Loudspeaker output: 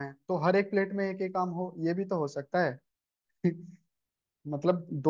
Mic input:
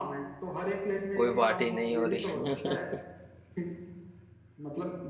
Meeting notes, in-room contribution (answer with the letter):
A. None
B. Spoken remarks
B